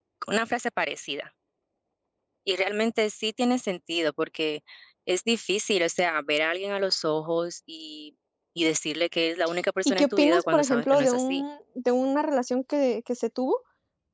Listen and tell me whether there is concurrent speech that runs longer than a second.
Yes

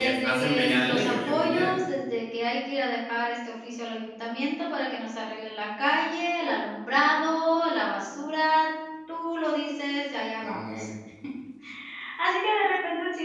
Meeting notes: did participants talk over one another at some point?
Yes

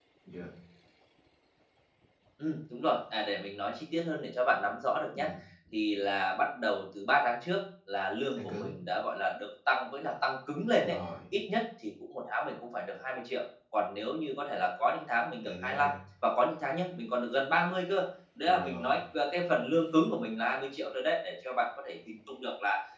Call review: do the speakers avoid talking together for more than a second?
Yes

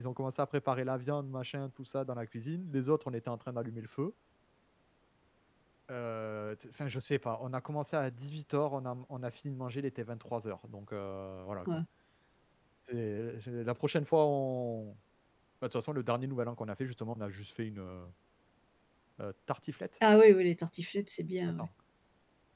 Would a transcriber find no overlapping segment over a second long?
Yes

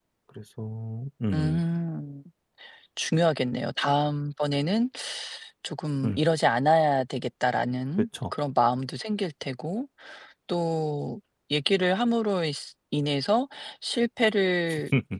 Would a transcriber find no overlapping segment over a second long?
Yes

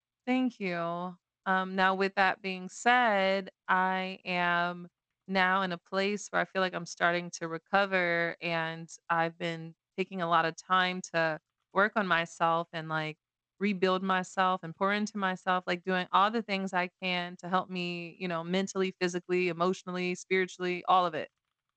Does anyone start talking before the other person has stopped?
No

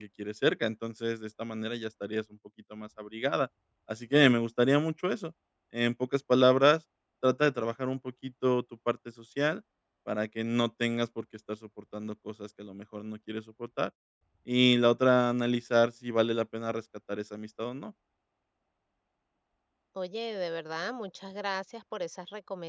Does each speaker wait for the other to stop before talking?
Yes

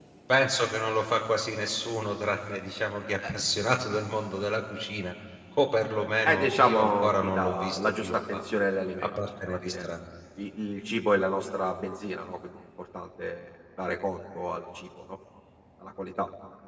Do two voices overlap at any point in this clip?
Yes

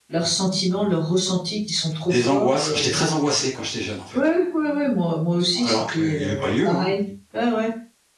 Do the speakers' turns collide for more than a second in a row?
Yes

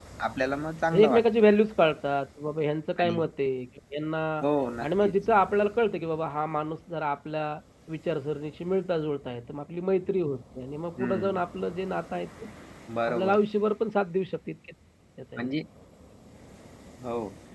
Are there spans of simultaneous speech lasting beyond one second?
No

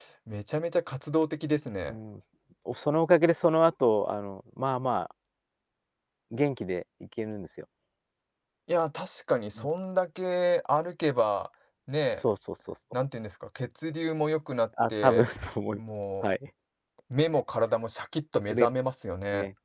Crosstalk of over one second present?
No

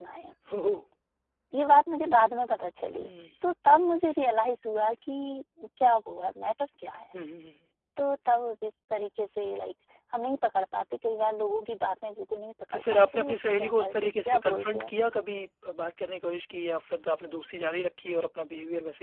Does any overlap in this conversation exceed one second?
Yes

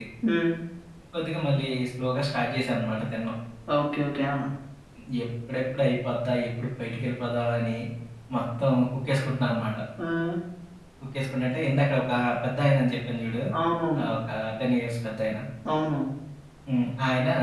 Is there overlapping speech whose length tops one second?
No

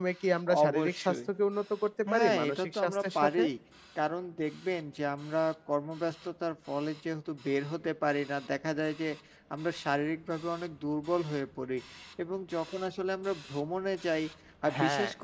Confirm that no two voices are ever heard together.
No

